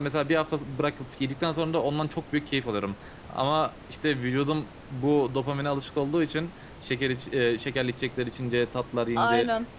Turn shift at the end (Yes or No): No